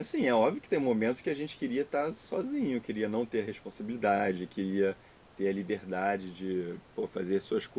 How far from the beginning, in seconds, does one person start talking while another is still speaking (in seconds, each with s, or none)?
none